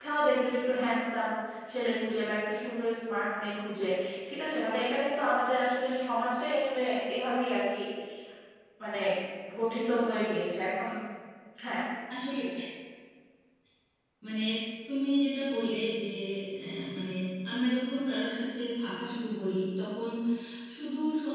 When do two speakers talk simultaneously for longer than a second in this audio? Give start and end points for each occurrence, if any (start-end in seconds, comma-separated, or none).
none